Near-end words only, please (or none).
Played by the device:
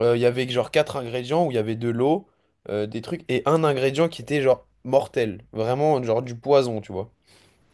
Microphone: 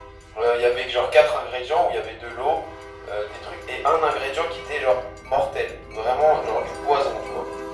none